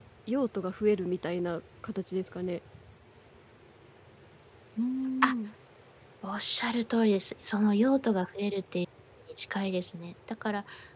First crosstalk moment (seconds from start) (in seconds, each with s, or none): none